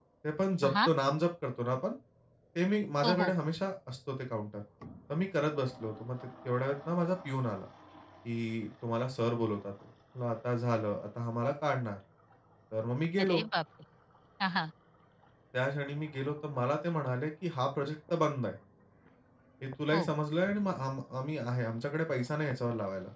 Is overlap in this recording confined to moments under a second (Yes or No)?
Yes